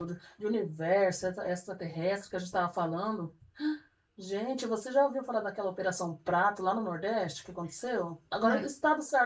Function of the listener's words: listening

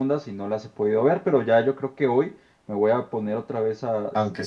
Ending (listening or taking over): taking over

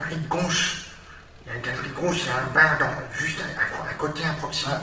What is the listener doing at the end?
taking over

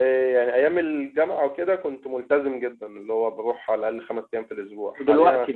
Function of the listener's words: listening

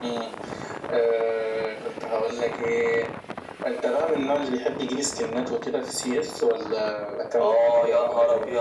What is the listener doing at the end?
taking over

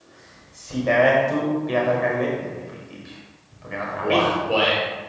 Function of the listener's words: taking over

